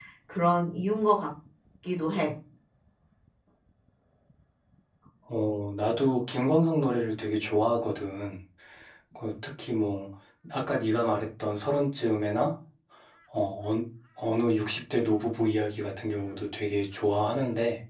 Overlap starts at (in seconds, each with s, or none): none